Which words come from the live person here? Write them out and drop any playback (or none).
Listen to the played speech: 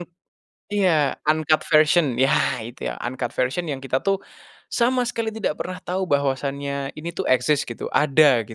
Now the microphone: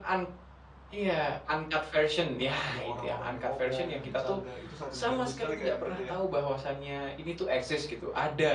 ada orang-orang yang ngomong, bercanda, itu sangat ngeganggu sekali Kak, ya, berarti, ya?